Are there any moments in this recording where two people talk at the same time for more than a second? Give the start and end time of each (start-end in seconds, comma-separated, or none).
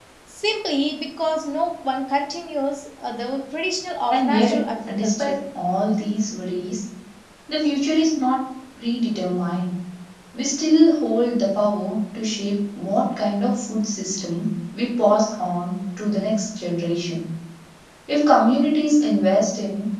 4.1-5.4